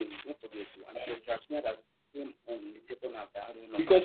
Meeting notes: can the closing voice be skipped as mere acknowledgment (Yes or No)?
No